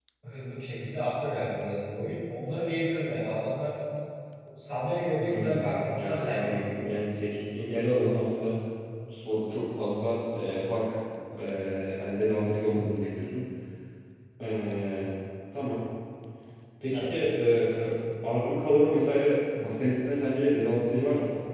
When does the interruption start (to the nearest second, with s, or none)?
5 s